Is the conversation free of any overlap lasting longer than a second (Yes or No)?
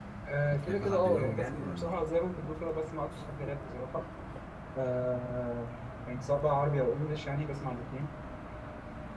No